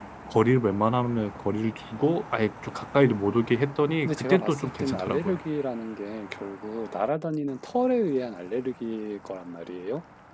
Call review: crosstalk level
present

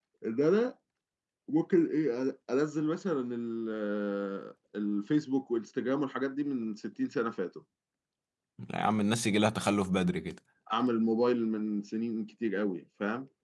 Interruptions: none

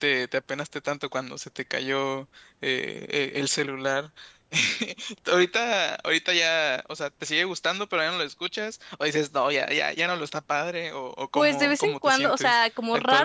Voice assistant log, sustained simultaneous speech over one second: present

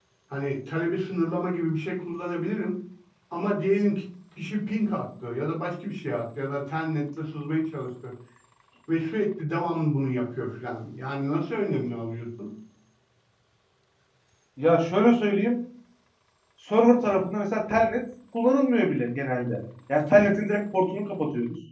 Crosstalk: none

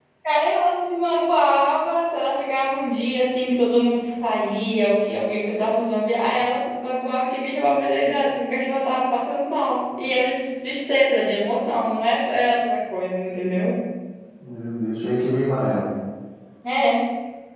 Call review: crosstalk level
none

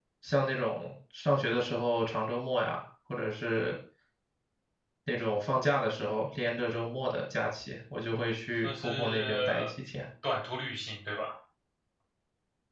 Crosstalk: present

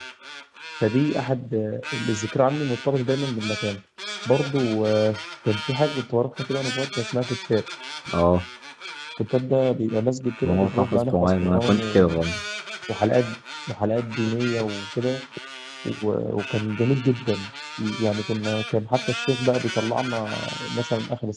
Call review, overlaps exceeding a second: present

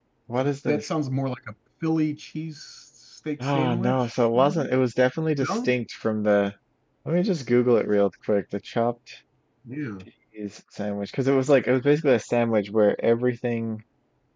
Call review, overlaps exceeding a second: present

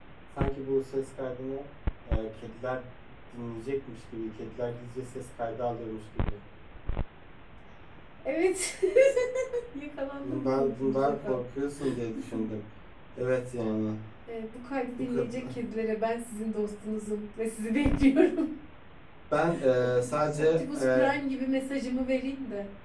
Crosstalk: present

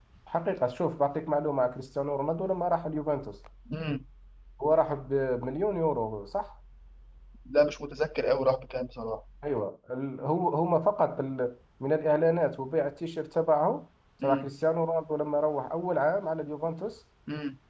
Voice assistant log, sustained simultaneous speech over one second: none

